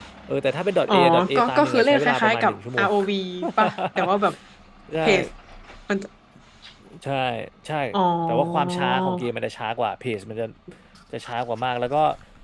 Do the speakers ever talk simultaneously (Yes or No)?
Yes